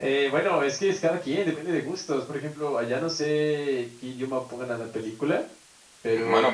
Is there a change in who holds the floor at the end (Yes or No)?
Yes